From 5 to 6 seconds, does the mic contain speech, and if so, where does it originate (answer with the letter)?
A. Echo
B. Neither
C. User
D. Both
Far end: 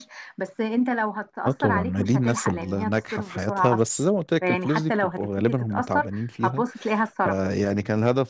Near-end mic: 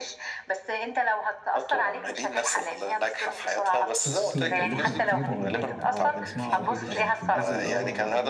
D